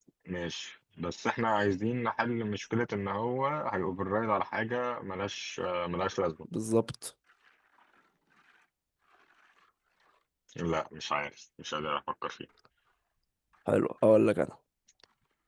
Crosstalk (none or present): none